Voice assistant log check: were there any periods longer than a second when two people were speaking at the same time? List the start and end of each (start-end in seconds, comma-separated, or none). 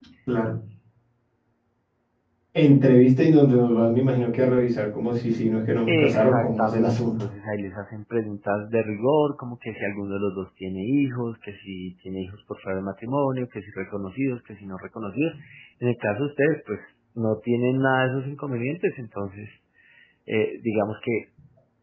5.9-7.3